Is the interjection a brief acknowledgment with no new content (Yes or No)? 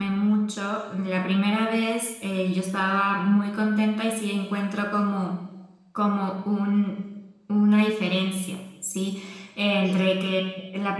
Yes